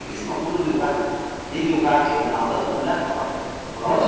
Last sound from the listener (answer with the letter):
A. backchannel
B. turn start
B